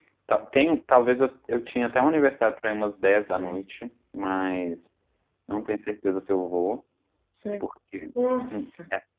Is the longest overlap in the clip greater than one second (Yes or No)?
No